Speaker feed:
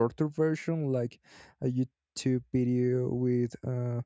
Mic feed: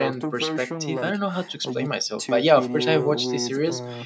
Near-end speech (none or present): present